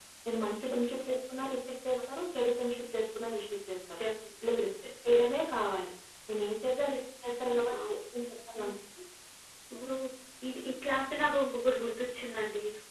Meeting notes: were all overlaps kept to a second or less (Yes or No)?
Yes